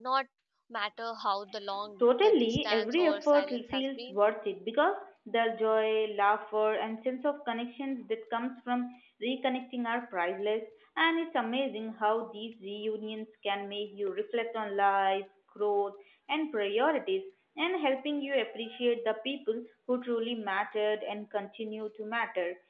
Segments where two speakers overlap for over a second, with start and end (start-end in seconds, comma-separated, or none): 2.0-4.2